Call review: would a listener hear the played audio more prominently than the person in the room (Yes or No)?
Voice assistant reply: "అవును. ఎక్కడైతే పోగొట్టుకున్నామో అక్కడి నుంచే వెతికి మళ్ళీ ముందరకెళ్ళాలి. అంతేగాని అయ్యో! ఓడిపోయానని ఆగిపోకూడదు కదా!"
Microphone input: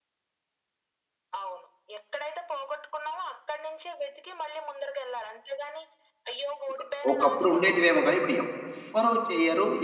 No